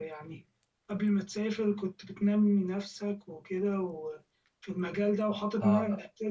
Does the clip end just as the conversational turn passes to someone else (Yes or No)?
No